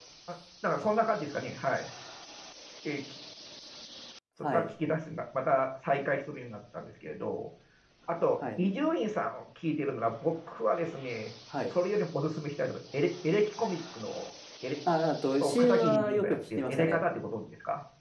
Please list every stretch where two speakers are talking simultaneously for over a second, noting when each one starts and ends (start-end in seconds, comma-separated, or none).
15.4-17.0